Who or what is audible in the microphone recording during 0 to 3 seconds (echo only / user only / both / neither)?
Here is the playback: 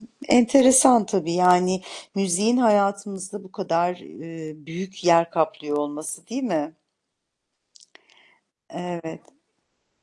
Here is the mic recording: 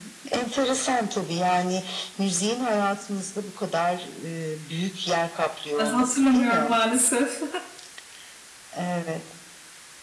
echo only